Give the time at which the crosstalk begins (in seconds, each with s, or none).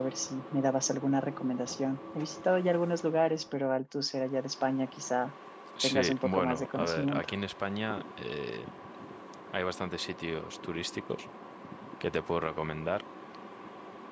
5.8 s